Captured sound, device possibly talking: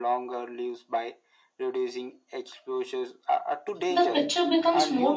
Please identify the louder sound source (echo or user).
user